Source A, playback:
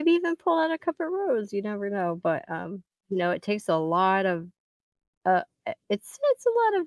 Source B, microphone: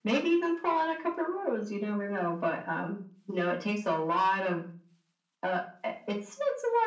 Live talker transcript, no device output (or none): none